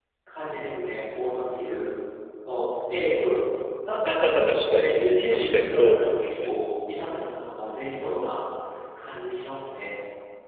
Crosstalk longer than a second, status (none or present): present